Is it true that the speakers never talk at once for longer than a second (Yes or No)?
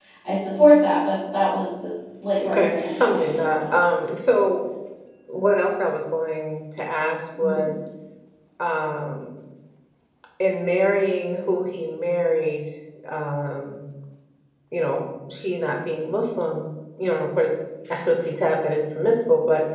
No